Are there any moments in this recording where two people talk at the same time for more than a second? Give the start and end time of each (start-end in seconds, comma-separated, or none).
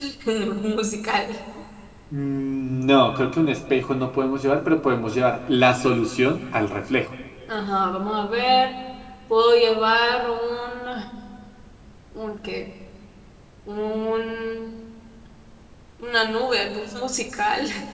none